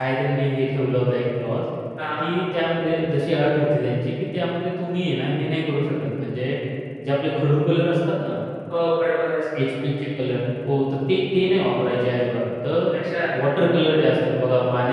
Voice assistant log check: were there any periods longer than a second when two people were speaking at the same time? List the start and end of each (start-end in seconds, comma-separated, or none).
none